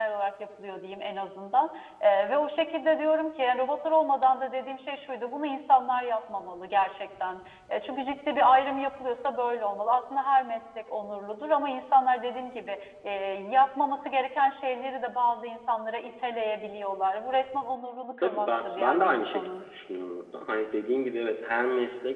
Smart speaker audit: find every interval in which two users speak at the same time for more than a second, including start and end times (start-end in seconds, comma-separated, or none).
18.2-19.5